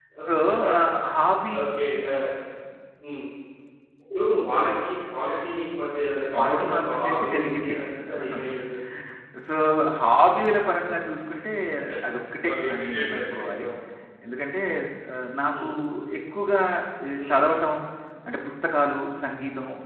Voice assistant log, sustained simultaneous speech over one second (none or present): present